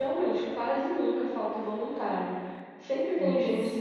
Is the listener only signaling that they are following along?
Yes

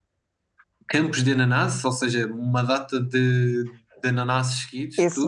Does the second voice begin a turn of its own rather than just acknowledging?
Yes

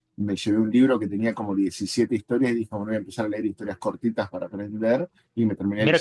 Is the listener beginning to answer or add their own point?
Yes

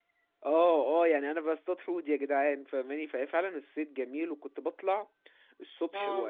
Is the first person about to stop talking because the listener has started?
No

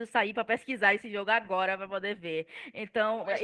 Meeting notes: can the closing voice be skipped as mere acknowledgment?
No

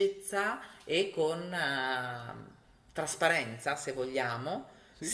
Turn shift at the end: No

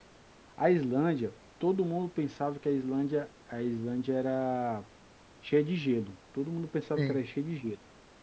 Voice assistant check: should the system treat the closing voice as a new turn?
No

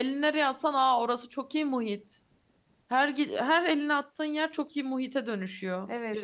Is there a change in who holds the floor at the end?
Yes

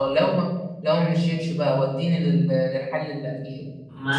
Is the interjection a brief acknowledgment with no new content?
No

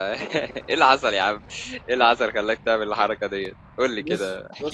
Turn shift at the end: Yes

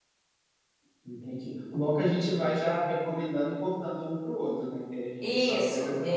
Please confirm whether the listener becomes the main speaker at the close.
Yes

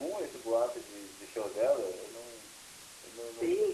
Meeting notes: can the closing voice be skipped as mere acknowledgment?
No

